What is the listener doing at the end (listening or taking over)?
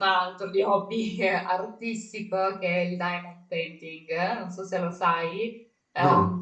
listening